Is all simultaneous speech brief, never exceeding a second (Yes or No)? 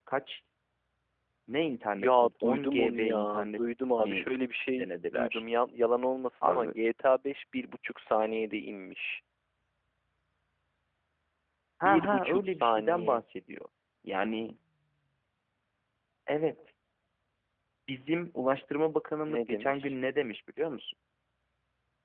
No